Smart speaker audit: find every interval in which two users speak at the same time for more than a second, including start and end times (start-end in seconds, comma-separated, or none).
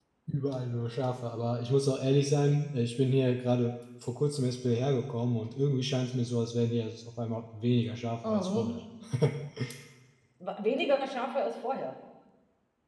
none